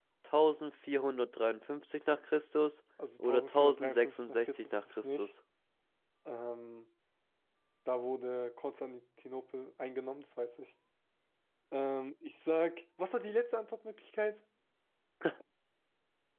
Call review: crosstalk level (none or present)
present